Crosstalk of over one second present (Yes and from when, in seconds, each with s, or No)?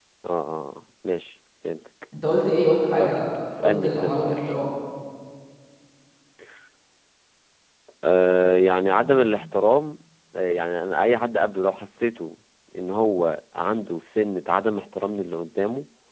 Yes, from 3.0 s